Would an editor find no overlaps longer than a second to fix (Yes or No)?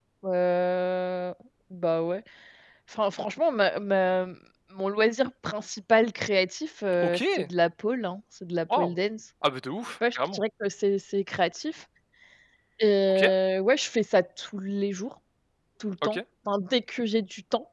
Yes